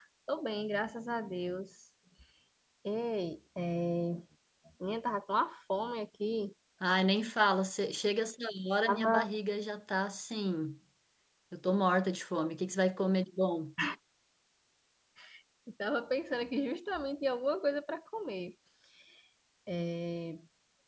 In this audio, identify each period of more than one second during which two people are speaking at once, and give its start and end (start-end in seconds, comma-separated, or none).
none